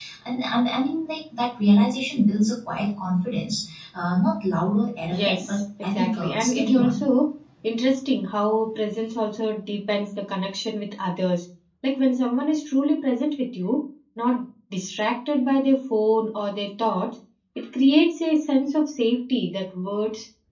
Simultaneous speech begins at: 5 s

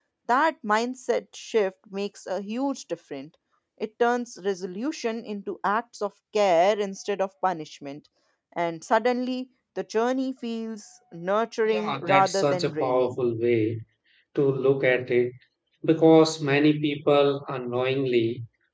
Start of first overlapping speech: 12 s

